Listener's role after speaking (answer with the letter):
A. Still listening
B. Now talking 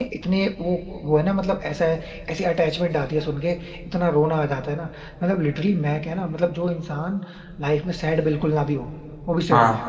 B